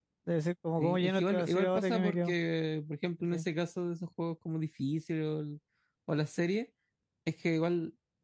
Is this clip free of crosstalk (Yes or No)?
No